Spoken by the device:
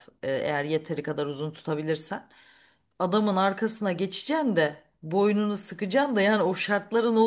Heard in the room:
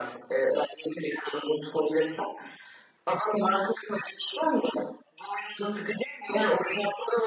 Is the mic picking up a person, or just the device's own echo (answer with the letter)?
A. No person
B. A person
A